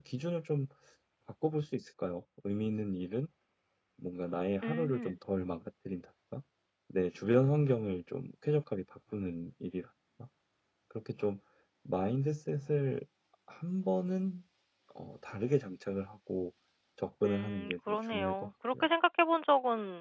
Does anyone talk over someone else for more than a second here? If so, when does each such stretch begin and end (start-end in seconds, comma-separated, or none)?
17.2-18.9